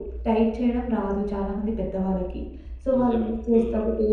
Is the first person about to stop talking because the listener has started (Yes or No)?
No